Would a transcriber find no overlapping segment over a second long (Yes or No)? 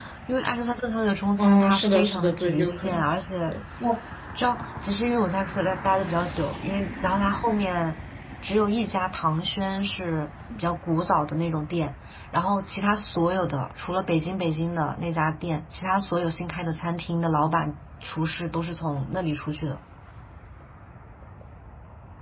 No